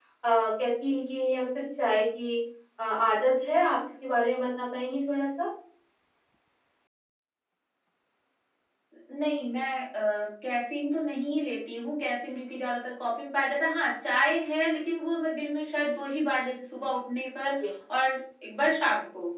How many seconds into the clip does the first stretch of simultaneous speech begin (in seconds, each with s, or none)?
none